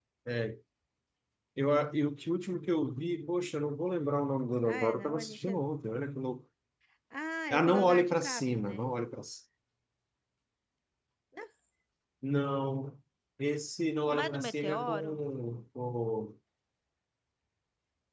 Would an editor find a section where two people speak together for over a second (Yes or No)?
Yes